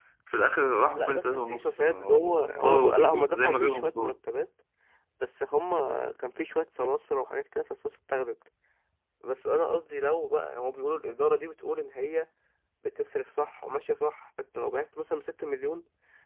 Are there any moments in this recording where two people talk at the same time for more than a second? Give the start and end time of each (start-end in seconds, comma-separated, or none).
0.9-4.2